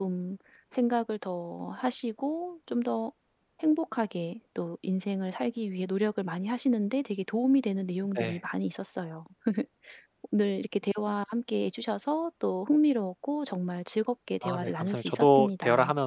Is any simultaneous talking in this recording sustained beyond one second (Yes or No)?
Yes